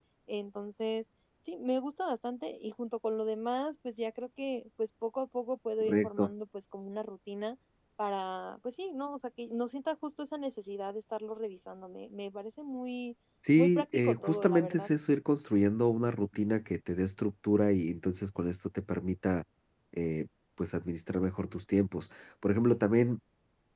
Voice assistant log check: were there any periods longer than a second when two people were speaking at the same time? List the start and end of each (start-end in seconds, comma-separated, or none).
13.6-14.9